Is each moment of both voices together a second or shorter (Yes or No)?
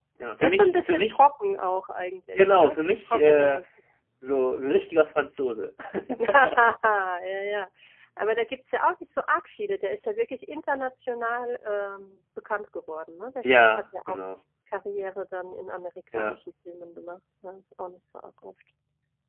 No